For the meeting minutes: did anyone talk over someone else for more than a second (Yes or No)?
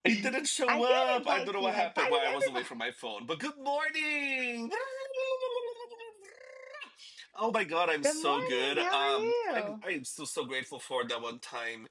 Yes